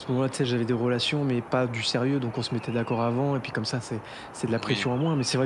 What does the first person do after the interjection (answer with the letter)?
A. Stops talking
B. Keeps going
B